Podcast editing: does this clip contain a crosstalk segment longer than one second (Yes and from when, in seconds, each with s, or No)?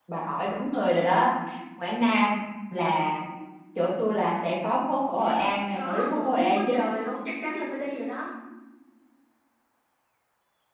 Yes, from 5.2 s